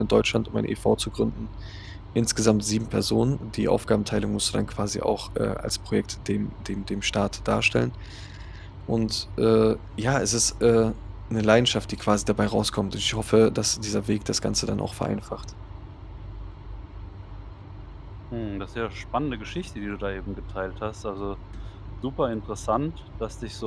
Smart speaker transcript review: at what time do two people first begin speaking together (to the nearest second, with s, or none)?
none